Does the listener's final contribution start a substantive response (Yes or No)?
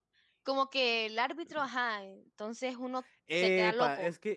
Yes